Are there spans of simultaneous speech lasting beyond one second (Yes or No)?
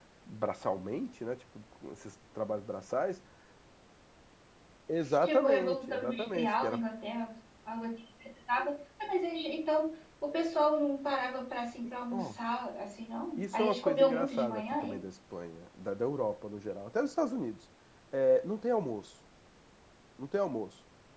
Yes